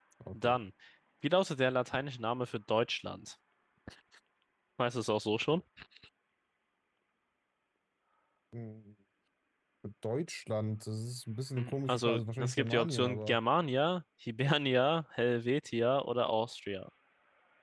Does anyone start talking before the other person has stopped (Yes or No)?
Yes